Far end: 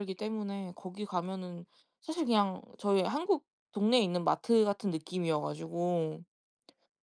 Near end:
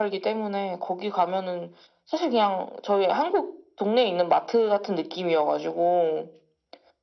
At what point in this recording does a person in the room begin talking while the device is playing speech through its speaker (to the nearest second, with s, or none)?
none